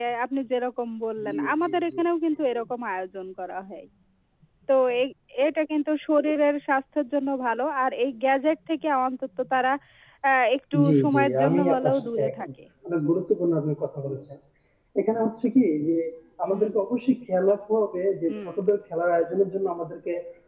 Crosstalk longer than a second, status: present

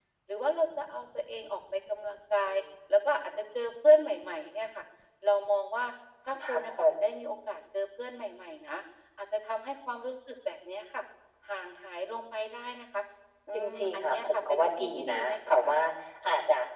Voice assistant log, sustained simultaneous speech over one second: present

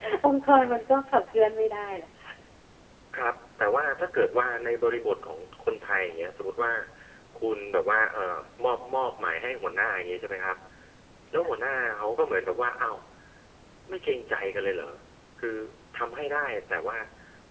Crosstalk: none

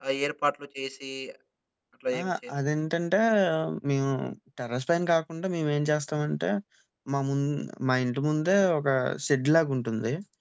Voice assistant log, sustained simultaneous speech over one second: none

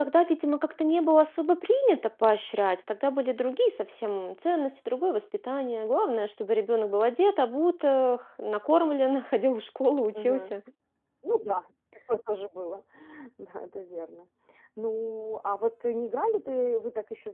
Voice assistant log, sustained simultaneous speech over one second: none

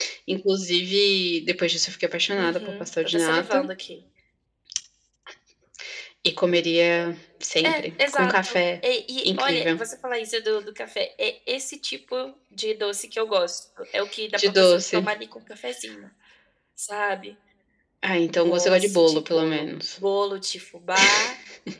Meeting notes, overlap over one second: present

